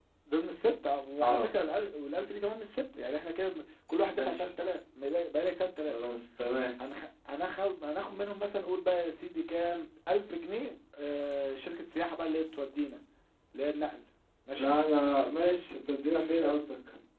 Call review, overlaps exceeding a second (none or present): none